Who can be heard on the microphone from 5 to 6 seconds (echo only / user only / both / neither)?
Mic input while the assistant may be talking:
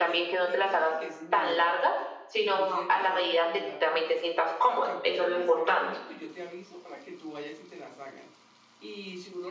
both